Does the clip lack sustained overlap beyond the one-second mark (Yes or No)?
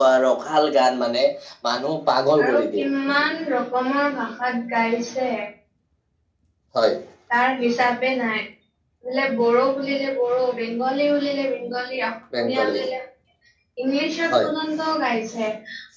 Yes